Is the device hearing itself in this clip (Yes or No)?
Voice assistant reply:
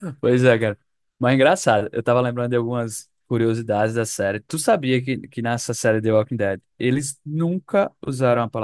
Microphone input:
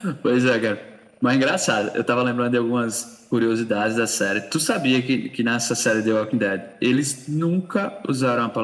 Yes